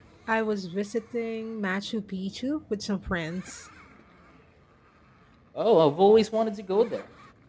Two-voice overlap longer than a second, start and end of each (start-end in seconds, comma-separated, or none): none